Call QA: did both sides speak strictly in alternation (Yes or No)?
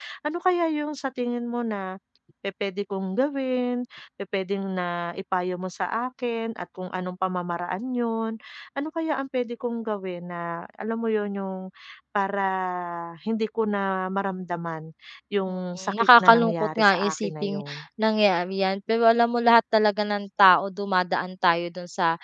No